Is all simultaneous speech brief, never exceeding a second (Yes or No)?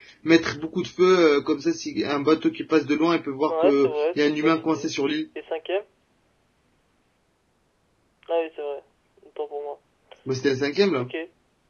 No